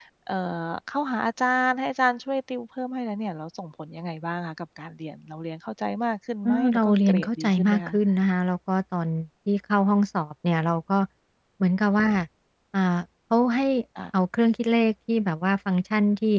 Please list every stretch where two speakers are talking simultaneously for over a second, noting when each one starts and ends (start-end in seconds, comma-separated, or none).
6.4-7.9